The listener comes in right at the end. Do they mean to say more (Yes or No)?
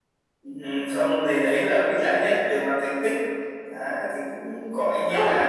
No